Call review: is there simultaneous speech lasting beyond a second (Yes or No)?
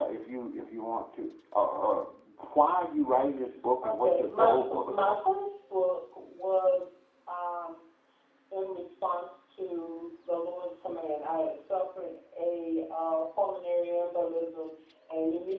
Yes